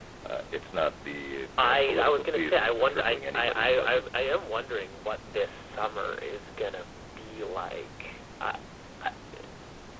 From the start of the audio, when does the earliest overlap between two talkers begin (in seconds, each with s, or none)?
1.6 s